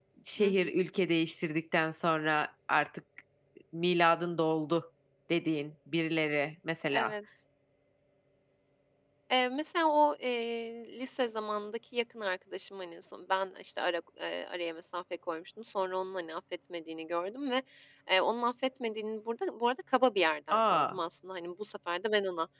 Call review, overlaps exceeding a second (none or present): none